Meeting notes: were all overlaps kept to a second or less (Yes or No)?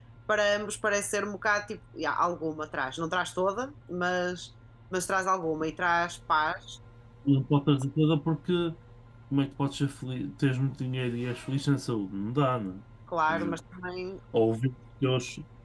Yes